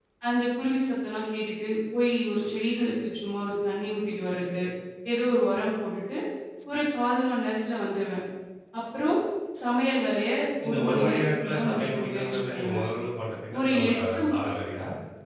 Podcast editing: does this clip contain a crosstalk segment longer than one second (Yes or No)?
Yes